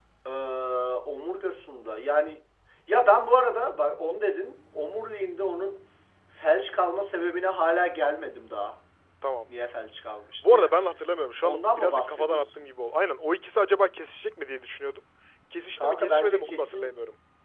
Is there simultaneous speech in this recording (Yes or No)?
Yes